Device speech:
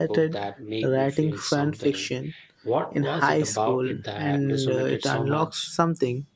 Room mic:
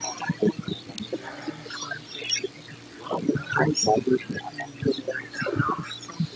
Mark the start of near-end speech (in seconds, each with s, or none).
none